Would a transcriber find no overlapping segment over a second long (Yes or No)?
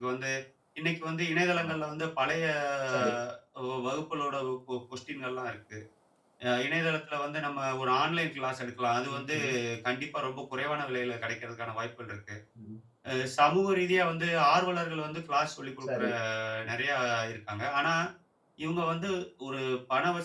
Yes